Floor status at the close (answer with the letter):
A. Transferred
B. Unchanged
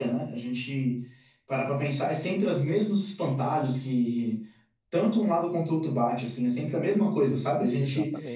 B